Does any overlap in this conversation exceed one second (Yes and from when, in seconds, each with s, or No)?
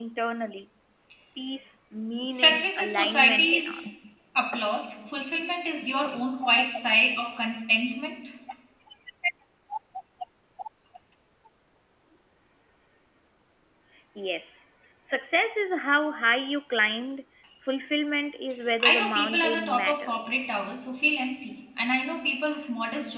Yes, from 2.3 s